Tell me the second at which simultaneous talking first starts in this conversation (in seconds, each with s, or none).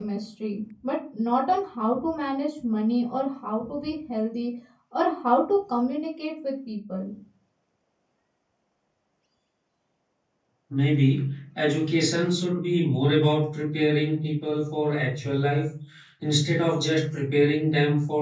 none